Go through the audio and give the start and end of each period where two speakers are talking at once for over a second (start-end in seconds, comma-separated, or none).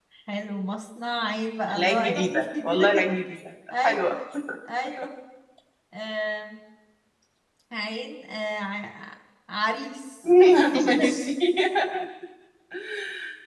1.7-3.1